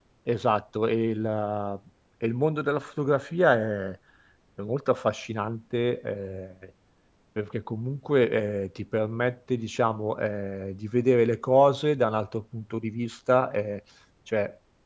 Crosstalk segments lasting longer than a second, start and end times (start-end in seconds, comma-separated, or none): none